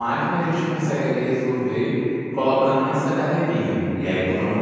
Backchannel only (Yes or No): Yes